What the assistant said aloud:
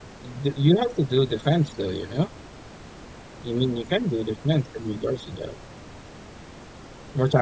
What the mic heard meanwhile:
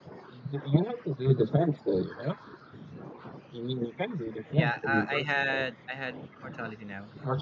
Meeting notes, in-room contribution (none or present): present